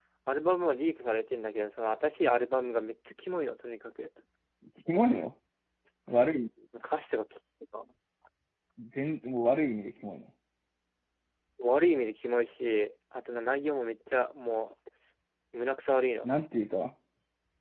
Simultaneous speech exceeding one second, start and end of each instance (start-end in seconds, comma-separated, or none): none